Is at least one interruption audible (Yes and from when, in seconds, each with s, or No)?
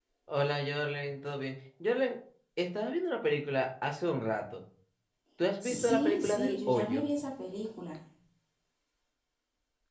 Yes, from 5.6 s